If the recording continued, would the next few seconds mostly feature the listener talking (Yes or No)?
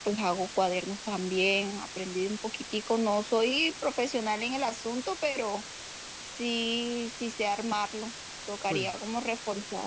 No